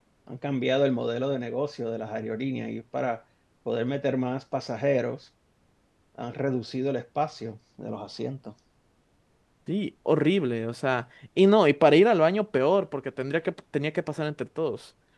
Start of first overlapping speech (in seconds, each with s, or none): none